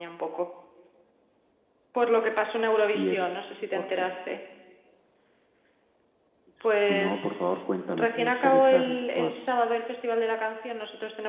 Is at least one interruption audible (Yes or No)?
Yes